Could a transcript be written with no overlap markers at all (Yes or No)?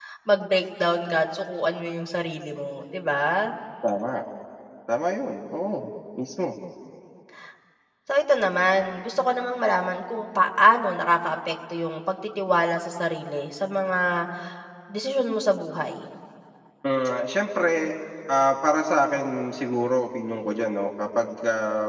Yes